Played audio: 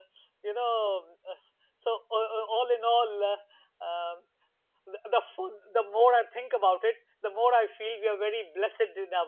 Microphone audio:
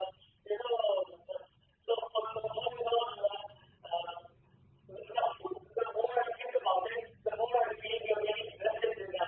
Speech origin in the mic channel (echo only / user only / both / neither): echo only